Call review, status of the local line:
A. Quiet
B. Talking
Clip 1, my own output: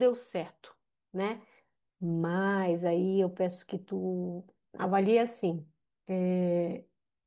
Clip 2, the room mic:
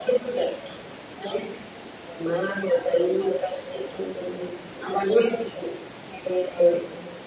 A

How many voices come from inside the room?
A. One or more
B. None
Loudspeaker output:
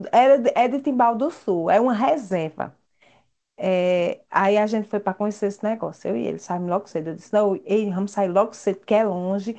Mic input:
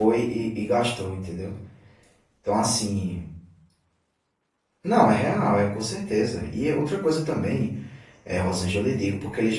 A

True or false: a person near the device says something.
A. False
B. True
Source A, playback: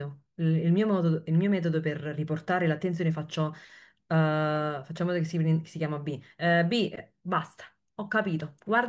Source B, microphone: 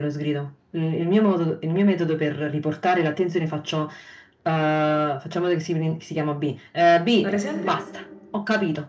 B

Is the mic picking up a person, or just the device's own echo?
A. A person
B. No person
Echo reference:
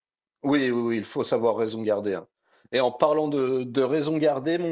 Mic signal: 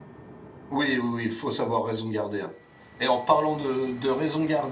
B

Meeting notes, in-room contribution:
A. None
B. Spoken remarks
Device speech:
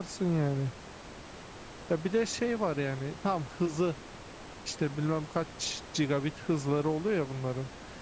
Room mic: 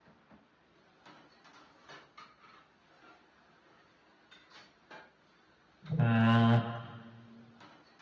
B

